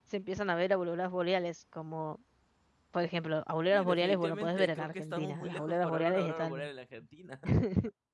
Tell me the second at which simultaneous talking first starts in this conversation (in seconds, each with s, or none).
3.7 s